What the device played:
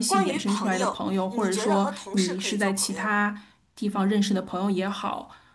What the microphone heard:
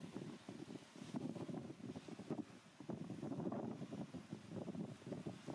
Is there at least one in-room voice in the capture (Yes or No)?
No